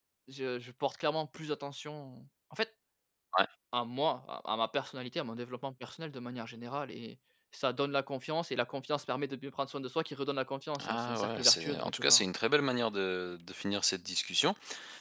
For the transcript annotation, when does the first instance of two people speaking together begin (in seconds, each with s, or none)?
10.8 s